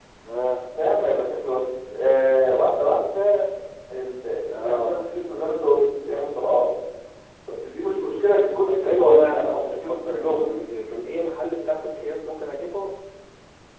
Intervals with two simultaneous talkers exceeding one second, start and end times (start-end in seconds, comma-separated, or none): 8.7-10.5